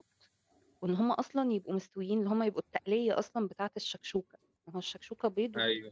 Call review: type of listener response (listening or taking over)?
listening